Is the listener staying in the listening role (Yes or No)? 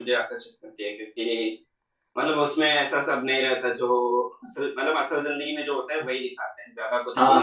No